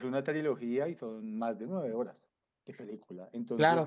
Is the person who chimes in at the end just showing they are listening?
Yes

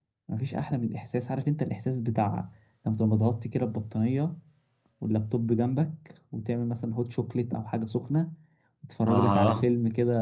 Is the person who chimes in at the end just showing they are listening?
Yes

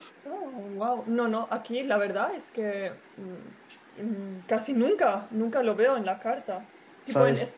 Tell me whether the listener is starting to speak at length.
No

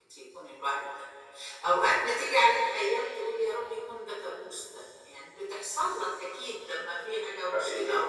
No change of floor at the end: Yes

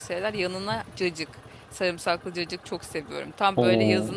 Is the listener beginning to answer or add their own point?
No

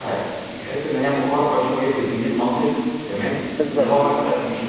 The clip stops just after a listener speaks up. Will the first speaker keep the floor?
Yes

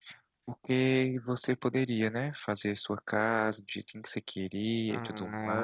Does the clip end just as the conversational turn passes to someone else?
Yes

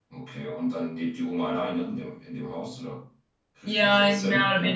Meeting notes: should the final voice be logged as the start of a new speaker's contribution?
Yes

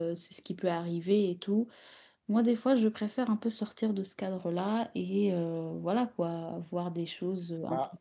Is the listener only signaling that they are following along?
No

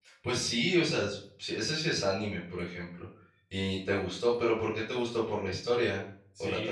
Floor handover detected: Yes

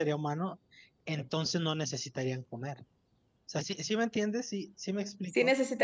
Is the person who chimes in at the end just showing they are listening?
No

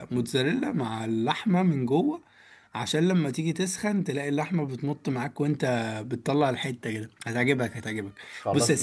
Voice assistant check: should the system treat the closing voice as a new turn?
Yes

